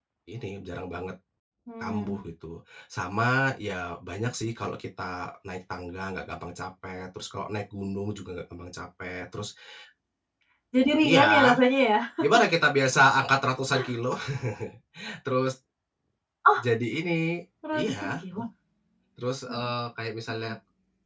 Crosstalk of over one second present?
No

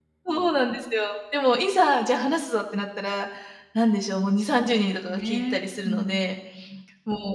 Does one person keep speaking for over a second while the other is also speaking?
Yes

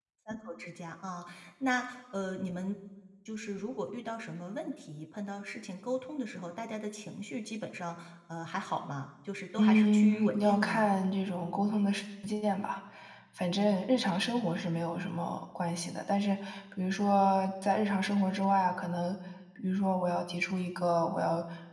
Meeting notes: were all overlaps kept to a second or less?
No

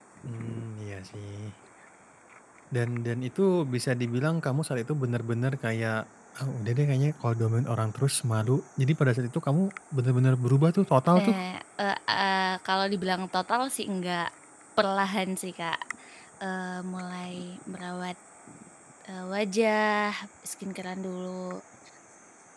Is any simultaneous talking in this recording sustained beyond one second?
No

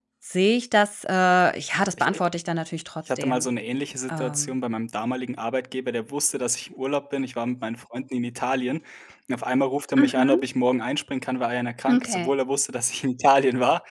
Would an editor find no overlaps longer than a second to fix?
Yes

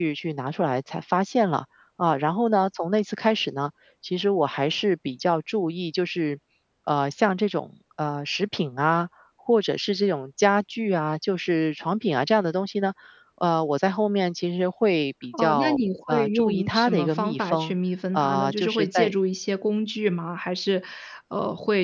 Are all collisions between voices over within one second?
No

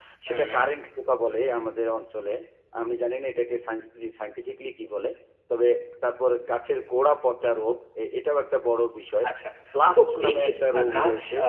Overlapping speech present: Yes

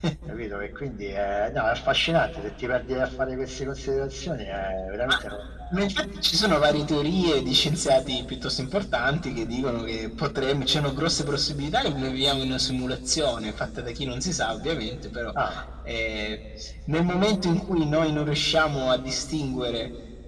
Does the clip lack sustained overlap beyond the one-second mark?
Yes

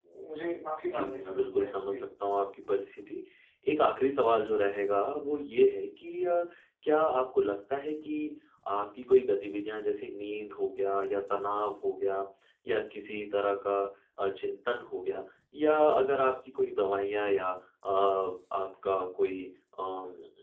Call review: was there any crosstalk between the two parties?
Yes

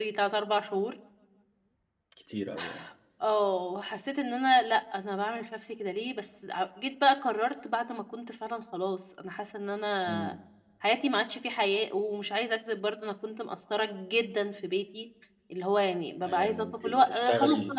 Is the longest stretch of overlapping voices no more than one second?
No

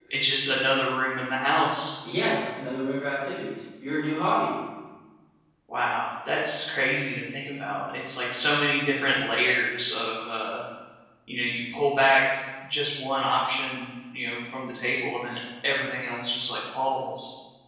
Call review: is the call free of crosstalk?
Yes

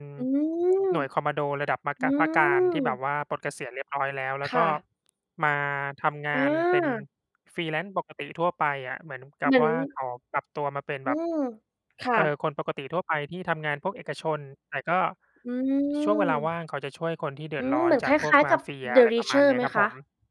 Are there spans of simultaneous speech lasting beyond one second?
Yes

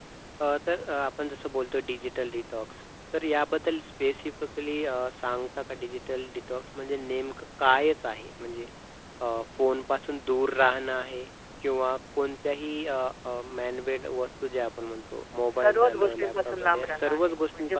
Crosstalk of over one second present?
Yes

